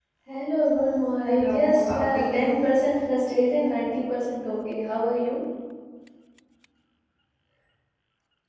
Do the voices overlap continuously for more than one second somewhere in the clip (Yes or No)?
Yes